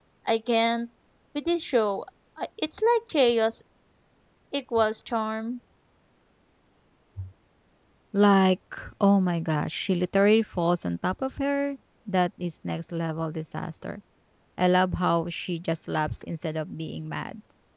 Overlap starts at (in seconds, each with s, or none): none